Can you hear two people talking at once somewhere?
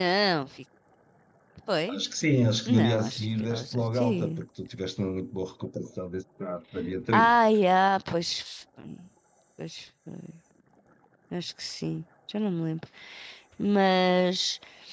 Yes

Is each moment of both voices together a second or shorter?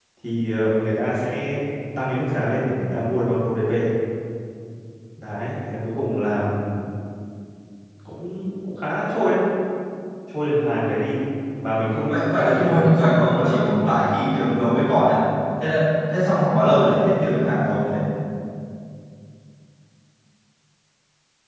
No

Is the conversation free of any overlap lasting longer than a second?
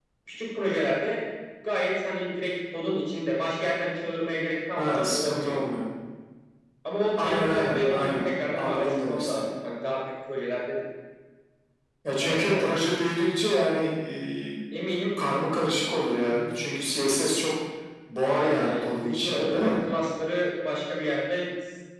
No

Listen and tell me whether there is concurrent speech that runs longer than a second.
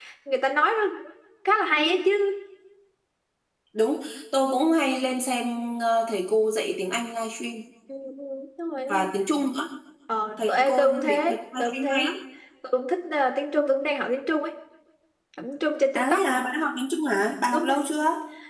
Yes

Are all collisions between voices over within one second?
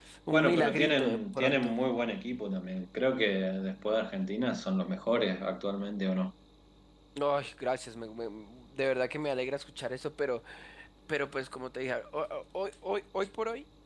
No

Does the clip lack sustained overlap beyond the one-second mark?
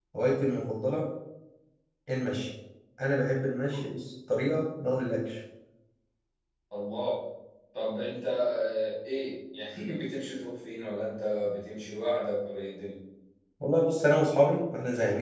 Yes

